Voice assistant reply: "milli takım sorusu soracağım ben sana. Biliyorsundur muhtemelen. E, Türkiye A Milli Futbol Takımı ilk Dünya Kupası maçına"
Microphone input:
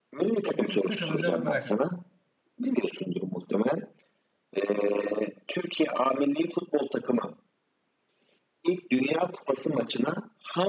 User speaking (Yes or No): Yes